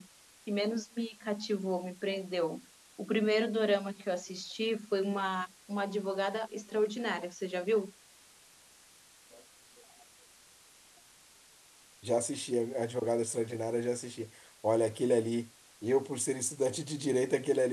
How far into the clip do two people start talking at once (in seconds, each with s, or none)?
none